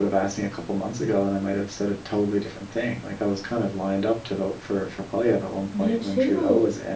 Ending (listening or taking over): taking over